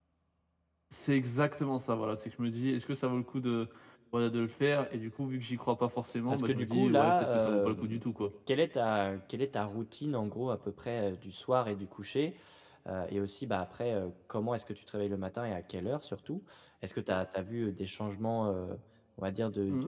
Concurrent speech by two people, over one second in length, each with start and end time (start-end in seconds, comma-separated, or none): 6.3-8.0